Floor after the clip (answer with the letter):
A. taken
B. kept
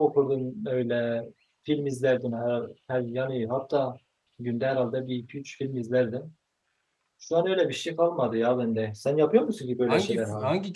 A